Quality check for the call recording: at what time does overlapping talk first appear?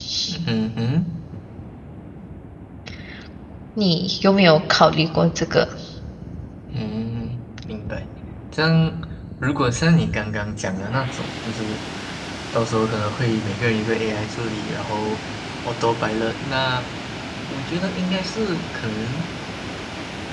none

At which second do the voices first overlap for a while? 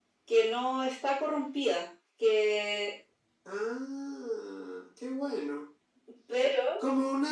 none

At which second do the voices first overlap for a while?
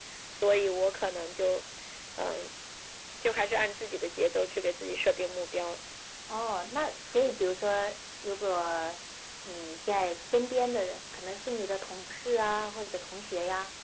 none

